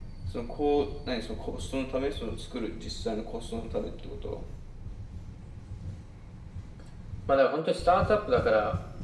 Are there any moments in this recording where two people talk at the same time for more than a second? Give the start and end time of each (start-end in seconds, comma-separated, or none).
none